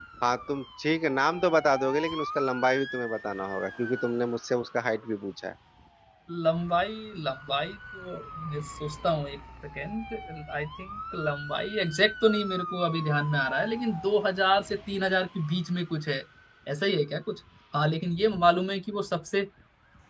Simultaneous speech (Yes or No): No